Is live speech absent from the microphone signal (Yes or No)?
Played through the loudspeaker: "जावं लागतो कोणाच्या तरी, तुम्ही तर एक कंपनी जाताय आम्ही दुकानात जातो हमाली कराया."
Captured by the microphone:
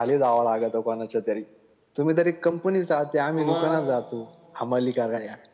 No